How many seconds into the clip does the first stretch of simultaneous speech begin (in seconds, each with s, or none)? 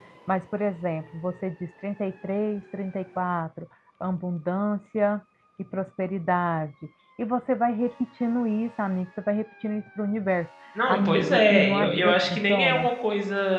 10.8 s